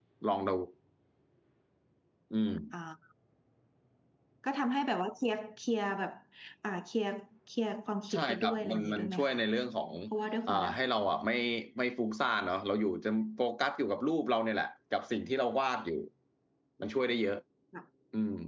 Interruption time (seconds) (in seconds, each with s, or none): 8.1 s